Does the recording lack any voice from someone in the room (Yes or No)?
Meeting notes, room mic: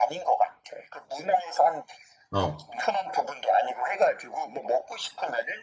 No